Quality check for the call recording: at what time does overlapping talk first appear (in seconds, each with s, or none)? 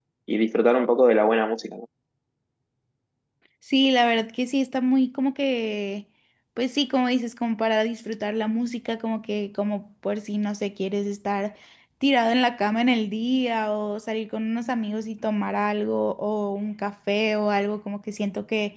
none